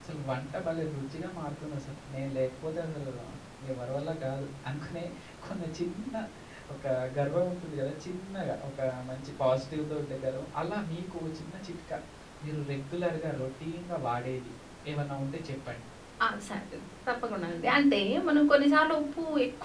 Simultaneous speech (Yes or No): No